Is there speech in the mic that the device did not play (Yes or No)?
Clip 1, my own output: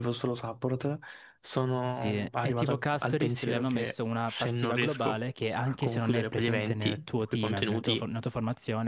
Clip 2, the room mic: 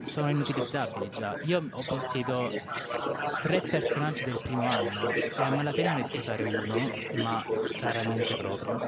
Yes